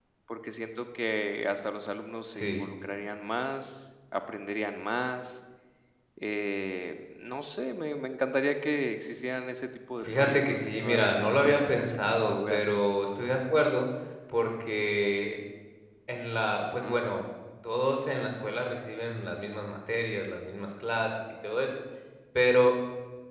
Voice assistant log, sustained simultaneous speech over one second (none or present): present